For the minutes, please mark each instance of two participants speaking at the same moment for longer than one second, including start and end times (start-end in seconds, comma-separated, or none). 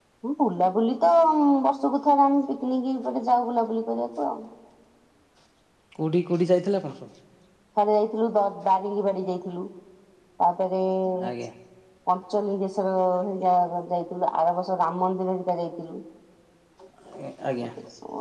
none